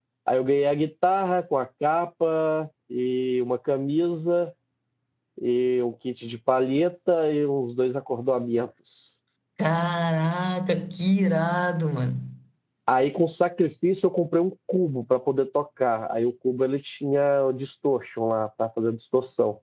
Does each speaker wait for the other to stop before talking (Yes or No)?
Yes